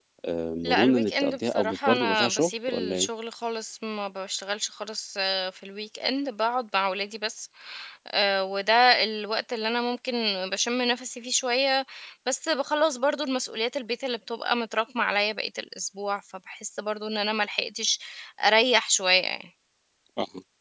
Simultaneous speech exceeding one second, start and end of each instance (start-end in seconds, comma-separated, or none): 0.6-3.1